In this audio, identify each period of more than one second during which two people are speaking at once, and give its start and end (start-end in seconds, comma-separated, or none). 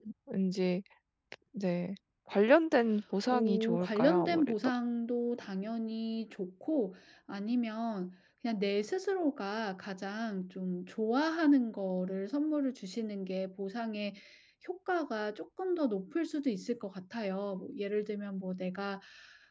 3.3-4.7